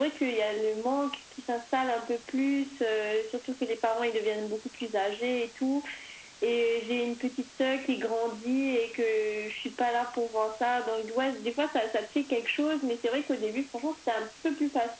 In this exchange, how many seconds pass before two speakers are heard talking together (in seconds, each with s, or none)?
none